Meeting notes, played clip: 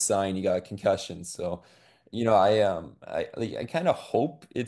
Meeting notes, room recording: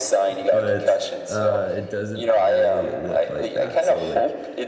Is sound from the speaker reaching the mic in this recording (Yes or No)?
Yes